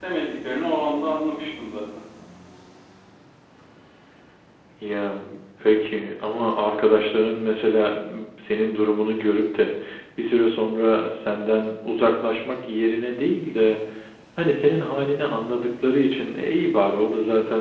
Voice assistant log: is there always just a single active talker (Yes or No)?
Yes